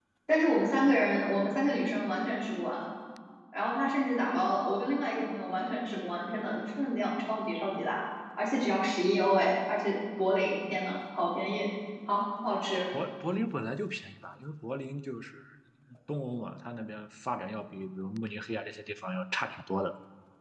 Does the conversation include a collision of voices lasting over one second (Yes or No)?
No